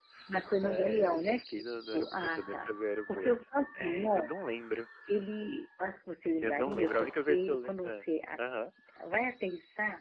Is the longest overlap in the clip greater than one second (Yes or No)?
Yes